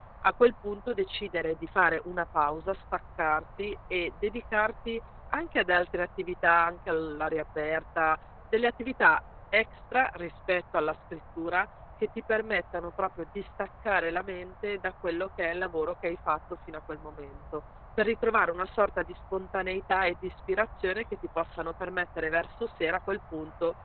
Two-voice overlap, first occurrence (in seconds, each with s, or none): none